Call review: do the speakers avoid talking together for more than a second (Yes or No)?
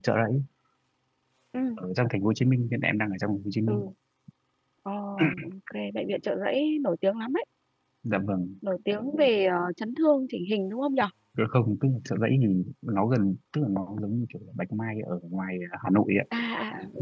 Yes